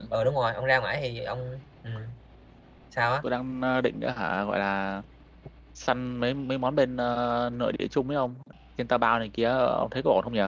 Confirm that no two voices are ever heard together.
Yes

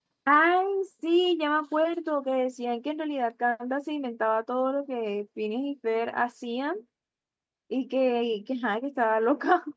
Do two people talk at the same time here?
No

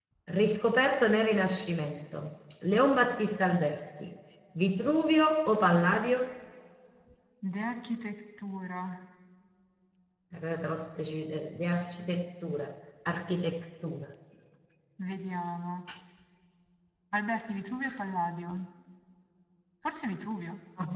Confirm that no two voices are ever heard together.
Yes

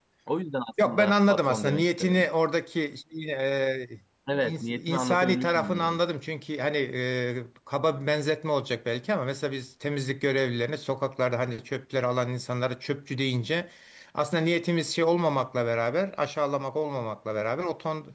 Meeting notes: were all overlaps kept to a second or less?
No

